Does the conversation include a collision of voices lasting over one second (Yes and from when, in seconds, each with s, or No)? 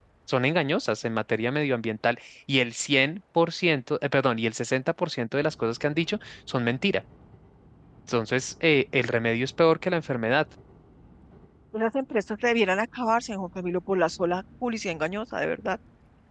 No